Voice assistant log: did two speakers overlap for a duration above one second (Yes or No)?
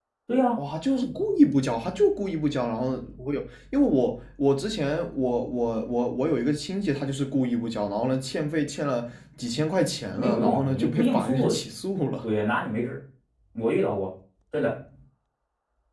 Yes